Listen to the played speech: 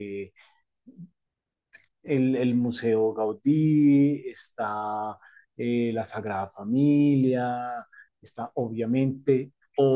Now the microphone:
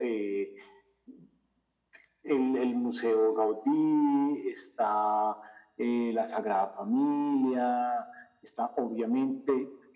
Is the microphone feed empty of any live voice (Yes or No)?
Yes